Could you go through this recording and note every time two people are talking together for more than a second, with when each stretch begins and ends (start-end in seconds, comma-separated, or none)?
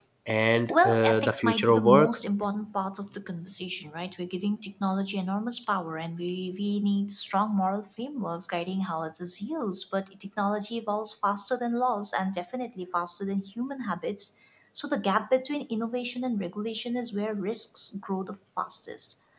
0.7-2.2